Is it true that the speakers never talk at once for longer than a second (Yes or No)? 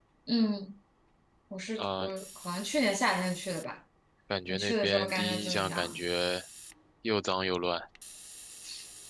No